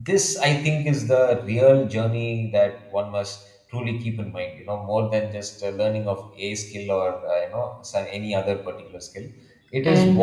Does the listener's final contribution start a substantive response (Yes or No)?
No